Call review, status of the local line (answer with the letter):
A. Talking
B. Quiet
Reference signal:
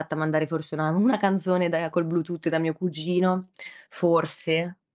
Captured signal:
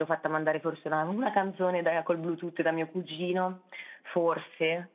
B